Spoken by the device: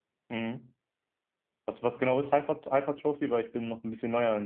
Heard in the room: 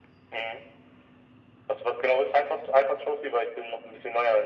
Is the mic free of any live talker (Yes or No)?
Yes